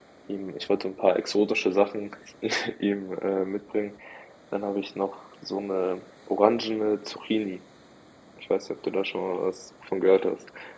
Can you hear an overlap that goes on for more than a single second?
No

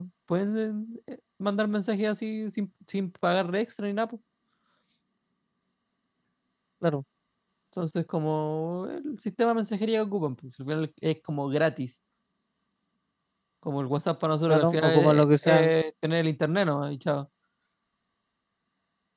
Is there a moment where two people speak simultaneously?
Yes, from 14.5 s

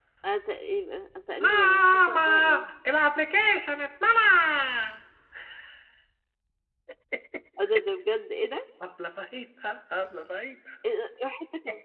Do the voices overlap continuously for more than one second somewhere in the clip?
Yes, from 1.4 s

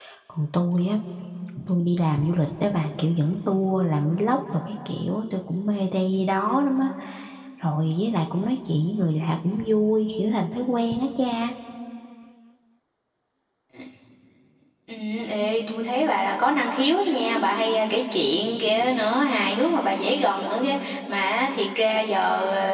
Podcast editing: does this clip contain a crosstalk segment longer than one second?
No

